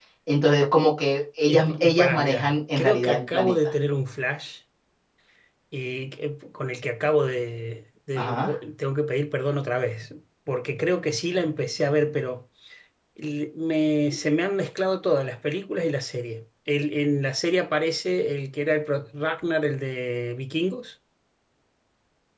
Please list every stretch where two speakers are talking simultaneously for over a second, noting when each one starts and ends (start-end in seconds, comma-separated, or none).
1.4-3.5